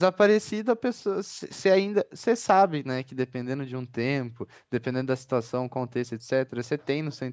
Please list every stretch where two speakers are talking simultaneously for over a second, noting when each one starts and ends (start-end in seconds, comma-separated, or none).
none